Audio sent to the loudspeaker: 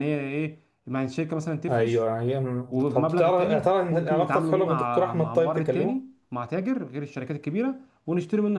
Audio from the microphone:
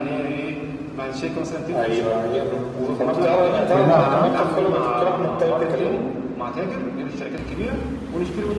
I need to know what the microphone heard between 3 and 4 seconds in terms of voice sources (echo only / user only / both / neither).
both